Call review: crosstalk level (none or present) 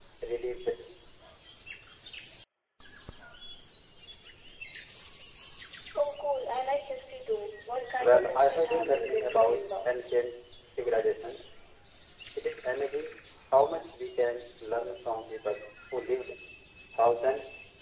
present